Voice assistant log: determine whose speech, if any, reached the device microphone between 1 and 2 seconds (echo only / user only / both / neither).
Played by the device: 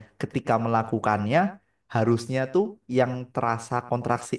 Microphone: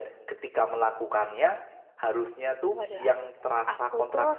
echo only